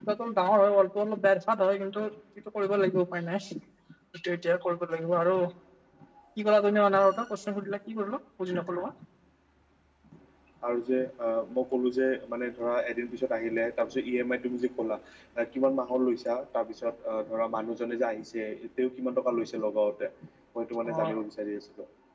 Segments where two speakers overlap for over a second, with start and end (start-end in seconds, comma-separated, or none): none